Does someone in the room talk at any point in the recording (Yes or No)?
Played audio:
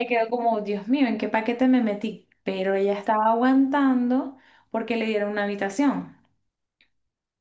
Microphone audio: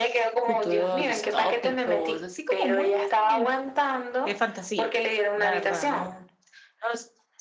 Yes